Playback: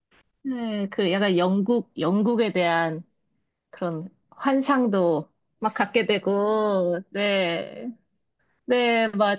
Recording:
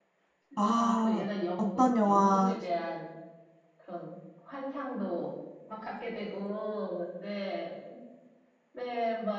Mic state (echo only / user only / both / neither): both